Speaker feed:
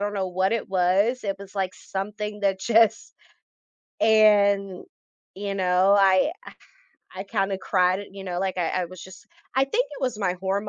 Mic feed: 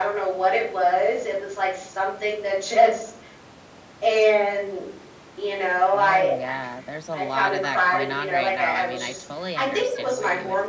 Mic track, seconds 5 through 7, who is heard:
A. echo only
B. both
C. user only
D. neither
B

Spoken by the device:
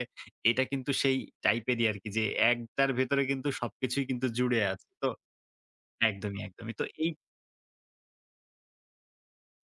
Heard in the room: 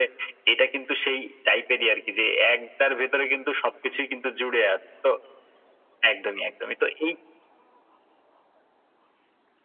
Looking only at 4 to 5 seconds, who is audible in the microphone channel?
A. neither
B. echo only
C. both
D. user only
B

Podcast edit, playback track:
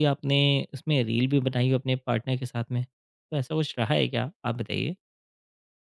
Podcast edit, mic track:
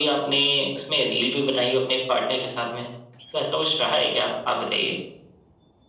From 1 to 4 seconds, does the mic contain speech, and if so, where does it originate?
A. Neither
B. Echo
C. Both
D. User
B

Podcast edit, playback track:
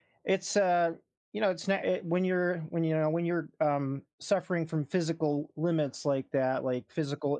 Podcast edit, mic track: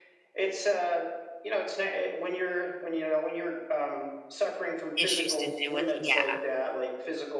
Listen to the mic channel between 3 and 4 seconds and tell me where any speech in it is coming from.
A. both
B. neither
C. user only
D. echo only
D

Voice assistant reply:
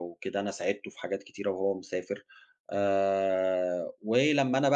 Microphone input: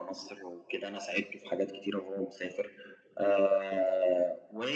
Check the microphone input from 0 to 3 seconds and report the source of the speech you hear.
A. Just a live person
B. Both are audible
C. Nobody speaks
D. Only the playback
D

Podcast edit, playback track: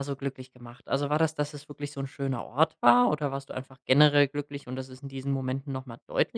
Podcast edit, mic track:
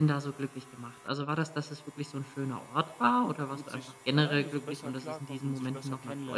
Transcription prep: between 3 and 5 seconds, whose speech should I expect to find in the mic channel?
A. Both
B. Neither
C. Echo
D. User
A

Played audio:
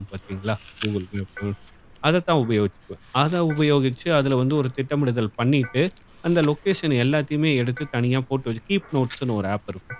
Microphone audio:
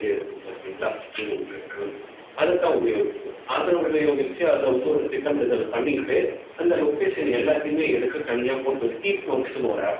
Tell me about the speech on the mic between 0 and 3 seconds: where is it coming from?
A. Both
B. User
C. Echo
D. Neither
C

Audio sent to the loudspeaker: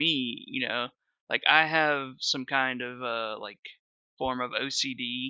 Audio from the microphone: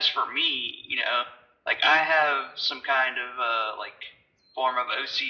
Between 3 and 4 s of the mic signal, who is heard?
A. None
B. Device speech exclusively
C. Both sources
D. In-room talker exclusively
B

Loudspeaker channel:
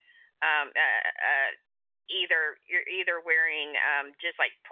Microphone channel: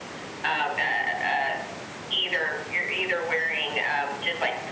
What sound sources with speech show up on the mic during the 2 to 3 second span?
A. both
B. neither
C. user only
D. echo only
D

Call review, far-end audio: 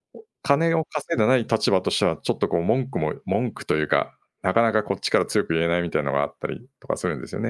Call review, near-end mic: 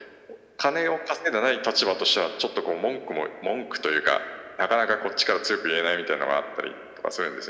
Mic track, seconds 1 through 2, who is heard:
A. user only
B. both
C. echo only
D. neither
C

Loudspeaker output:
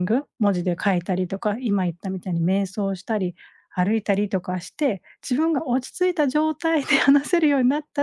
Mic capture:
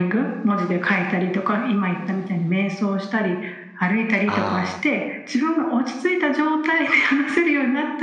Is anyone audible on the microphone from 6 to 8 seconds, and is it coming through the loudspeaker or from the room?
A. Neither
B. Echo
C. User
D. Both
B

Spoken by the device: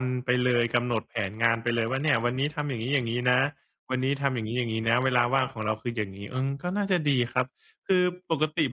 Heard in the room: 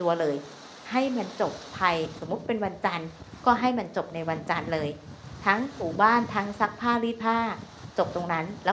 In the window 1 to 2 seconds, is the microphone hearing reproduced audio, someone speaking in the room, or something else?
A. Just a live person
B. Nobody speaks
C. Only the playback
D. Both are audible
A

